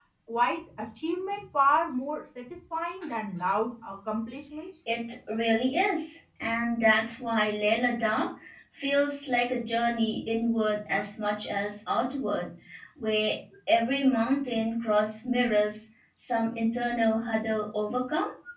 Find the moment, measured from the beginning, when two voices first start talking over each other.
none

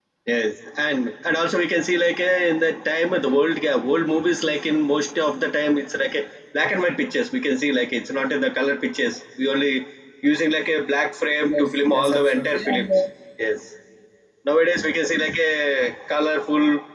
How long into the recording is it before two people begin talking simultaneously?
11 s

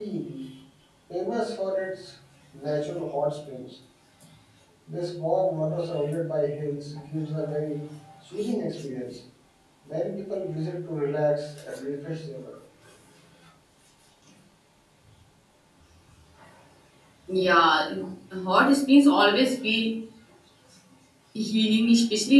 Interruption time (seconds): none

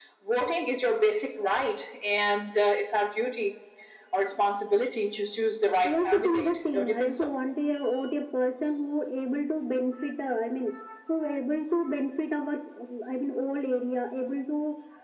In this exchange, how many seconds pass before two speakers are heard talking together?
6 s

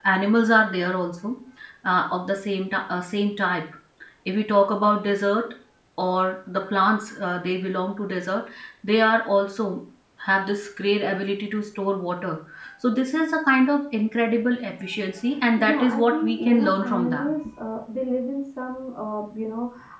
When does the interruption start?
16 s

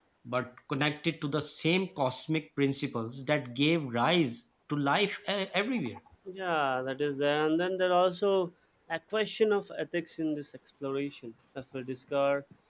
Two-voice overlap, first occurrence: none

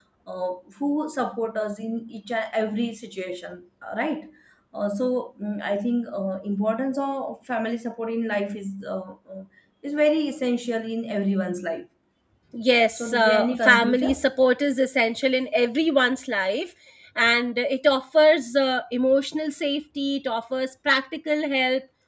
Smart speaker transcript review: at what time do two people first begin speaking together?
13 s

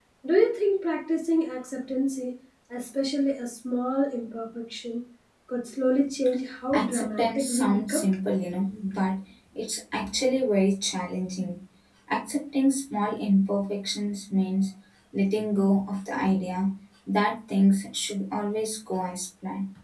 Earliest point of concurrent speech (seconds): 7 s

